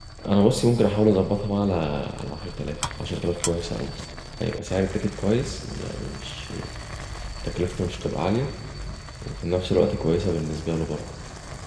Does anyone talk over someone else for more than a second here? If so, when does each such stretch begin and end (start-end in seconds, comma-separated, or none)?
none